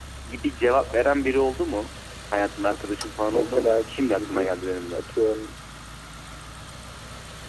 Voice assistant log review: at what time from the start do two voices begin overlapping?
3.3 s

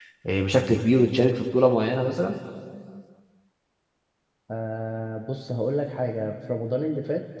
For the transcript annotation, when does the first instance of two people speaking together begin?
none

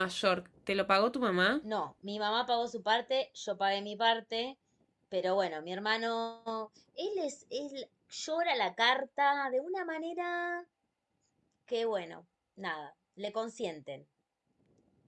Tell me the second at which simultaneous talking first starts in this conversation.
none

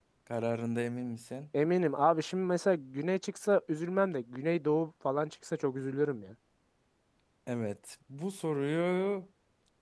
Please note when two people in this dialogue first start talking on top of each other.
none

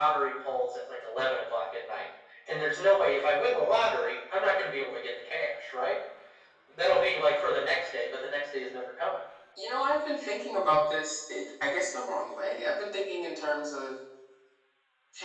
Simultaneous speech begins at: none

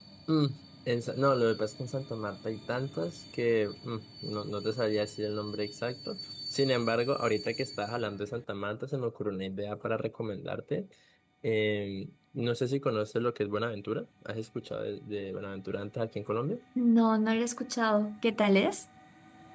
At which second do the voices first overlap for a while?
none

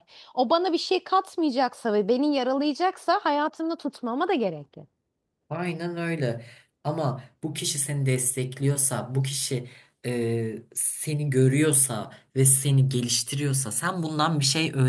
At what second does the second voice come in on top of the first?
none

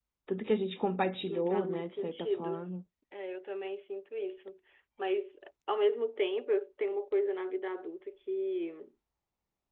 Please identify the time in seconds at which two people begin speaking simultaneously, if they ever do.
1.3 s

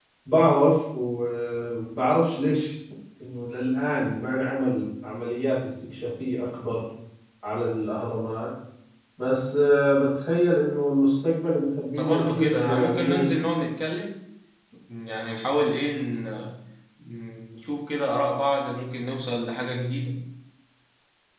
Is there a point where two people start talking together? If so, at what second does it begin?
11.9 s

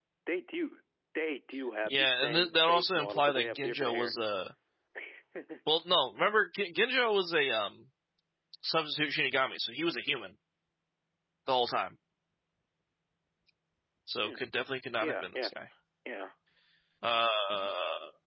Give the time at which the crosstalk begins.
1.8 s

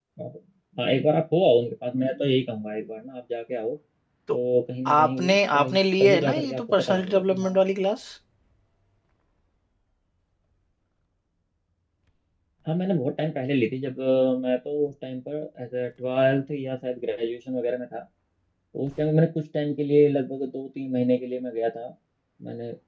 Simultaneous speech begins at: 5.0 s

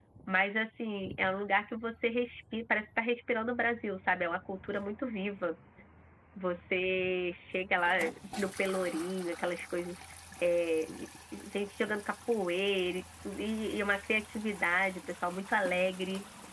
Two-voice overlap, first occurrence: none

